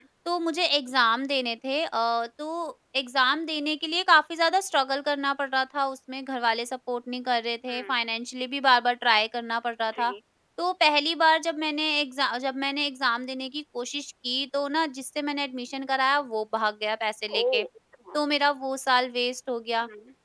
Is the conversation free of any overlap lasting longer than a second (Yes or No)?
Yes